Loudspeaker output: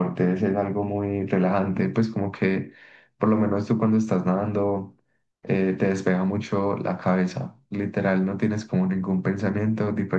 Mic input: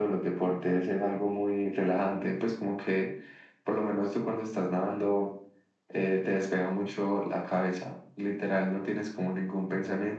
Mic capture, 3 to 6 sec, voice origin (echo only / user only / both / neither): echo only